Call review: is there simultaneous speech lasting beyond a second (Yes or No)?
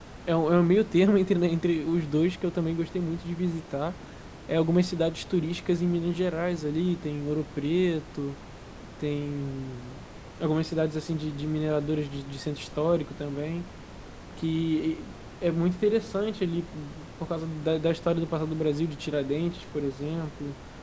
No